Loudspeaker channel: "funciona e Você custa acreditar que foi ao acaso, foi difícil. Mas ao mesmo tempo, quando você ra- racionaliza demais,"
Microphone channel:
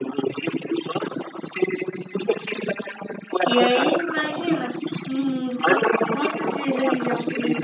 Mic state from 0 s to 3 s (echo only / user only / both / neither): echo only